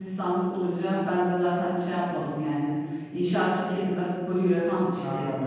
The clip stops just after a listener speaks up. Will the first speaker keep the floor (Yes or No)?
No